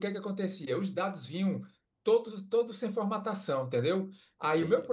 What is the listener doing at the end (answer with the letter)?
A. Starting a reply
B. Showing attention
B